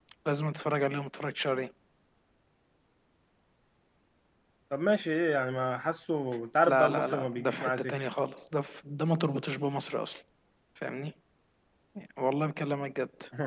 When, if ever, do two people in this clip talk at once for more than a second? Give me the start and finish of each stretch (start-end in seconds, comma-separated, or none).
6.7-7.9